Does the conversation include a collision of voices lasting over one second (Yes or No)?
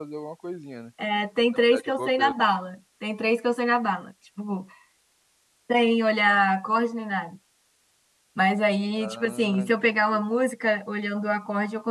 Yes